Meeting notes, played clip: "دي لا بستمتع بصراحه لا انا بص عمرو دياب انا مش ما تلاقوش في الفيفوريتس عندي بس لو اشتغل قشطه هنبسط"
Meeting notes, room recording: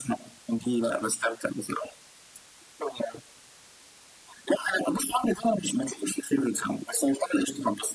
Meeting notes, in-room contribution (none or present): none